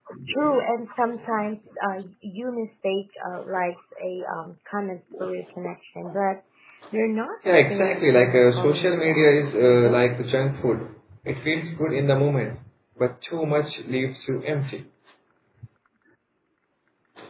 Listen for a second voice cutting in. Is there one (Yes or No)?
Yes